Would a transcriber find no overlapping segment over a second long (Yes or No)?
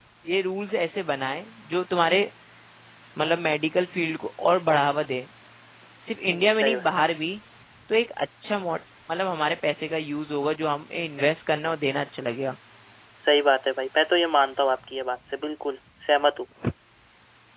Yes